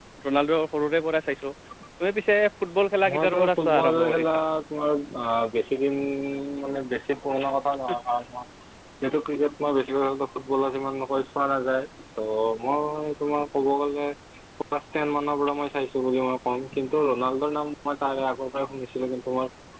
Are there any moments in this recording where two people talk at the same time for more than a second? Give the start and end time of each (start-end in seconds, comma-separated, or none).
3.1-4.4